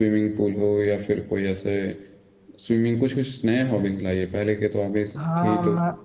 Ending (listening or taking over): taking over